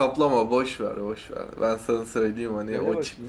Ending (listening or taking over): listening